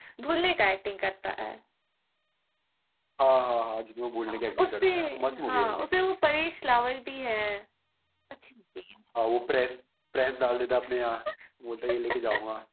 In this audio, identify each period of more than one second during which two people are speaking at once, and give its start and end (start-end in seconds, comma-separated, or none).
4.3-5.8